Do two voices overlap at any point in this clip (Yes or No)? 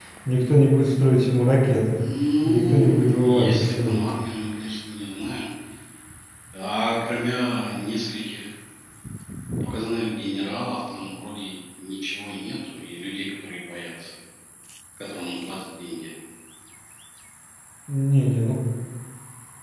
Yes